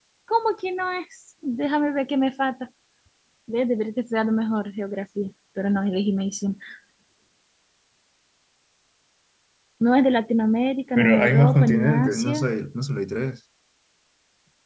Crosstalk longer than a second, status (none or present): present